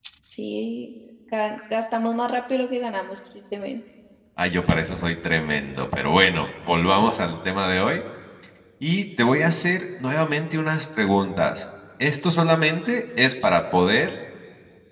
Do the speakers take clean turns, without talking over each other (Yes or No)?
Yes